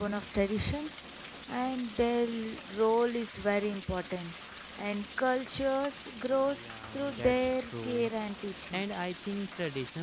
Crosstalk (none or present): present